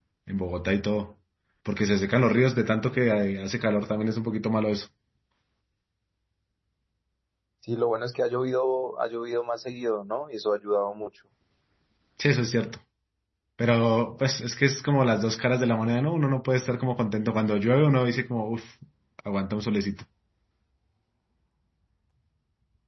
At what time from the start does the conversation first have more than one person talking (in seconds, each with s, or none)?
none